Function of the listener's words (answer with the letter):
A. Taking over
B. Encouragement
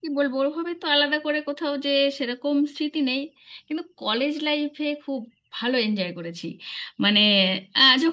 B